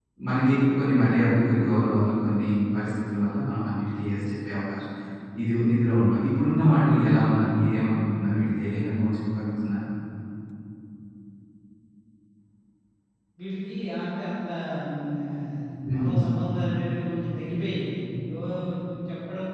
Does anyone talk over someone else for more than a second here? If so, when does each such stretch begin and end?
none

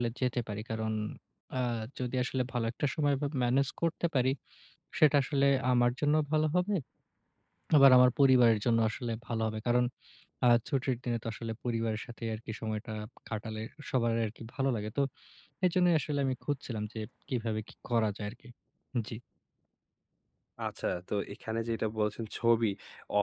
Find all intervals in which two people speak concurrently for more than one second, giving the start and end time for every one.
none

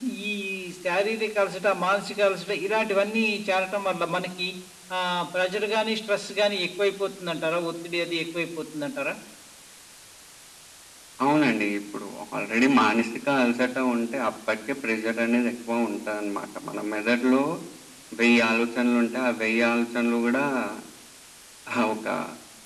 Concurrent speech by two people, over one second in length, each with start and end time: none

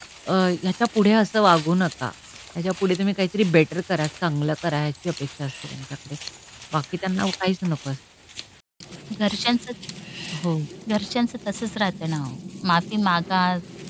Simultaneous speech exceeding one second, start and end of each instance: none

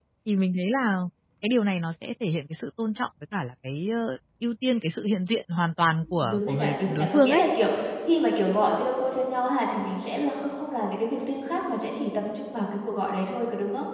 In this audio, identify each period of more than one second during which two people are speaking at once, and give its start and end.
6.1-7.4

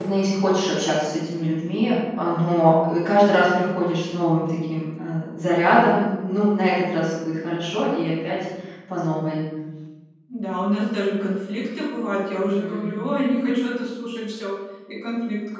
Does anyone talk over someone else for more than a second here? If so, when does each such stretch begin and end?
none

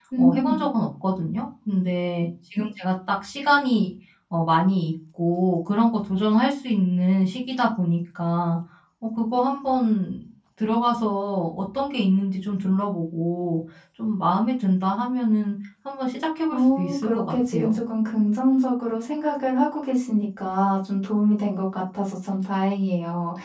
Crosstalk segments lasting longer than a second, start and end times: 16.5-17.8

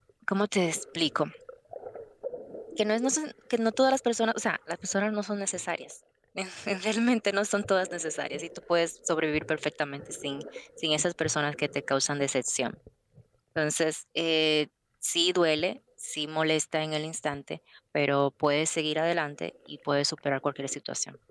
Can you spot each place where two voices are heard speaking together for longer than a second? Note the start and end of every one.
none

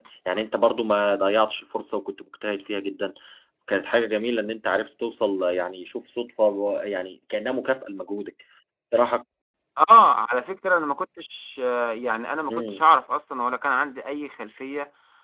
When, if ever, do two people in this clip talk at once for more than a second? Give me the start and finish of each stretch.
none

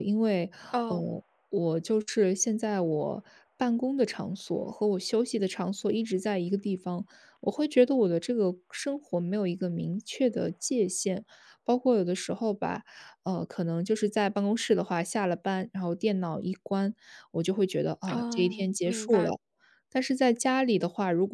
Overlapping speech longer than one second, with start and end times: 18.1-19.3

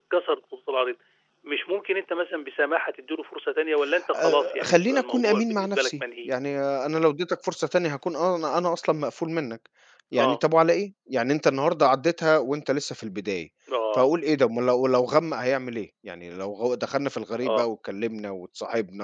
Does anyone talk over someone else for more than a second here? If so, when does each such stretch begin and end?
4.2-6.3

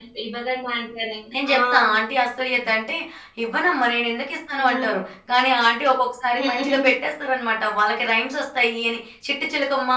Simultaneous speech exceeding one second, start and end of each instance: none

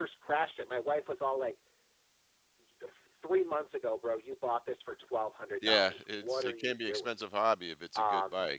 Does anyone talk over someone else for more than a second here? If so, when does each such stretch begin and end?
5.6-7.1

